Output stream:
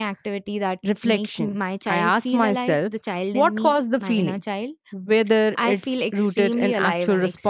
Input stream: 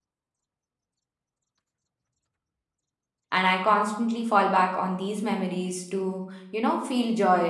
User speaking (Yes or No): Yes